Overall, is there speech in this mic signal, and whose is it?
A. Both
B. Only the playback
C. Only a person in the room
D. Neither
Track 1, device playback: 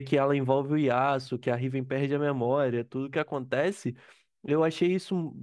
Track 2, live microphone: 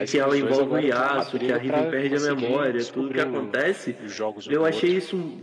A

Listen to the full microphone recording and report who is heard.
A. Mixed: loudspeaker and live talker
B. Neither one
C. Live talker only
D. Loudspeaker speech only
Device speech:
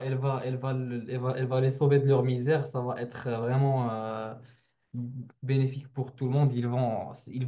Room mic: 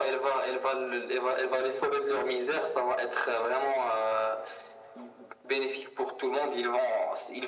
D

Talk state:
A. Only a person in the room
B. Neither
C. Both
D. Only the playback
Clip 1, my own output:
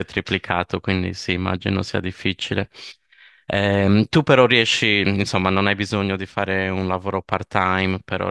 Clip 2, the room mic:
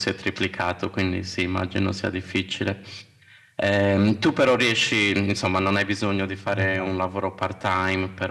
C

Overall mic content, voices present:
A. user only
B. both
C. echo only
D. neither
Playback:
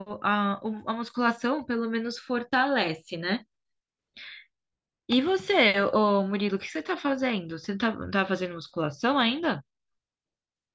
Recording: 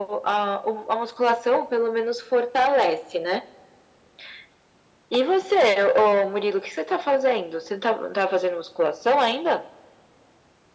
C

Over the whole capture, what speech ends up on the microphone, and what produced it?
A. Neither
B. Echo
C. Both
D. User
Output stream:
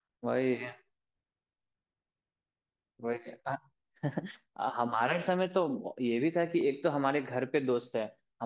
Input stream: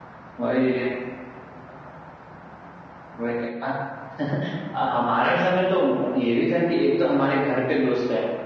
B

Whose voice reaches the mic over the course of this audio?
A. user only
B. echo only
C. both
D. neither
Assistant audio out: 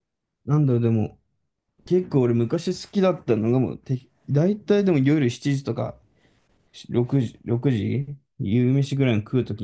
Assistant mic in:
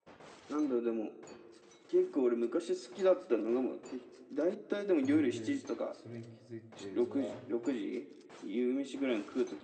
C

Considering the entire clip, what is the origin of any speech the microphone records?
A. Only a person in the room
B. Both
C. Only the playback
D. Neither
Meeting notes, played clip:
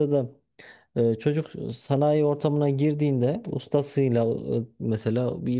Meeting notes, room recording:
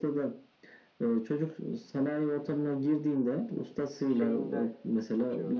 B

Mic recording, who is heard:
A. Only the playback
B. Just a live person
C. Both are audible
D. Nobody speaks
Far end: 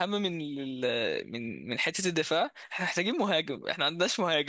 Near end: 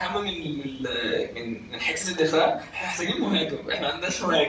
A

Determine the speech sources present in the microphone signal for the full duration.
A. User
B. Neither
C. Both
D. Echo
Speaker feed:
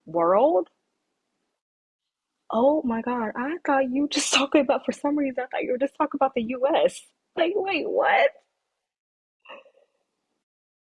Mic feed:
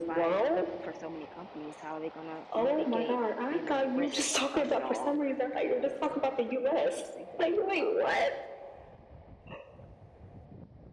C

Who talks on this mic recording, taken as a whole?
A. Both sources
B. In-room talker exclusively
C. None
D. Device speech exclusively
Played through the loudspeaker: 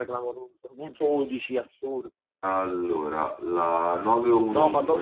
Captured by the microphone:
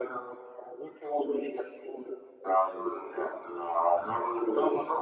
D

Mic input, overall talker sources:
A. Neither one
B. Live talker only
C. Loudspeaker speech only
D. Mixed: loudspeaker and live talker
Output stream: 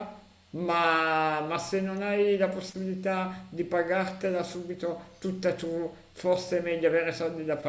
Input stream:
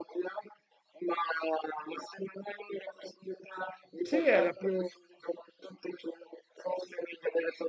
D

